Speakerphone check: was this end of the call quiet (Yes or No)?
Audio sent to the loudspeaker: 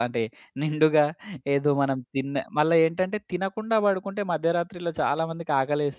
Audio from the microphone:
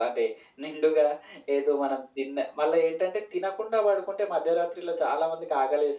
Yes